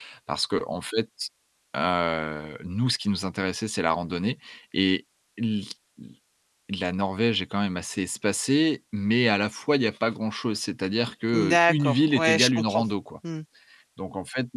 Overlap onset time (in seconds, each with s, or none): 11.3 s